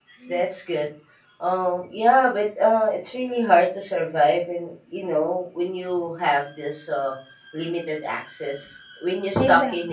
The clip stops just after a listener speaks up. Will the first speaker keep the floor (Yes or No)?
Yes